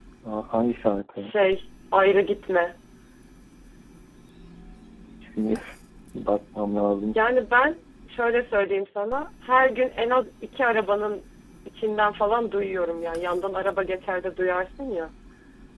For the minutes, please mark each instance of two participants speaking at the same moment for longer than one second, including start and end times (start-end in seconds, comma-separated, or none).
none